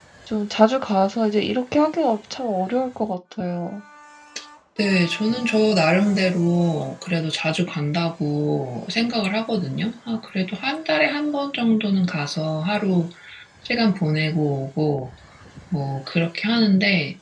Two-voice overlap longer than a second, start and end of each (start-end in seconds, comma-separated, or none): none